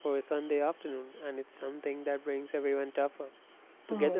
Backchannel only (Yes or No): No